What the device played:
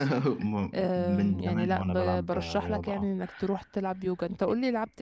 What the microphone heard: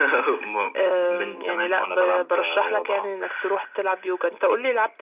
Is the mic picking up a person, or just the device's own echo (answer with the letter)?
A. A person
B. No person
B